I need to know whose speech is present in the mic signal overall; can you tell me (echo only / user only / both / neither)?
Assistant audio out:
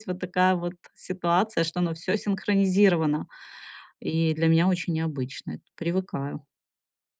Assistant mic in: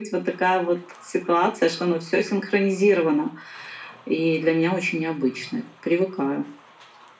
echo only